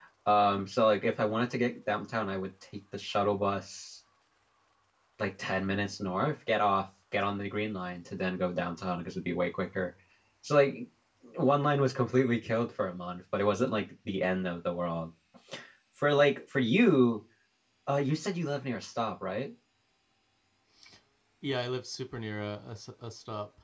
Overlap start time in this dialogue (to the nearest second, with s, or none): none